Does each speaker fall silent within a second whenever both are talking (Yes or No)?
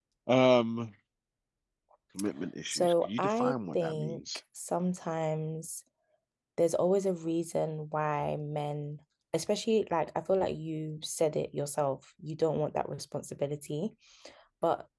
No